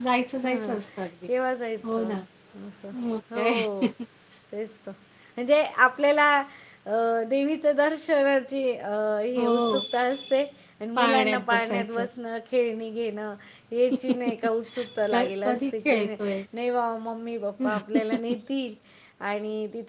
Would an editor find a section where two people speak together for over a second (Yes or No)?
Yes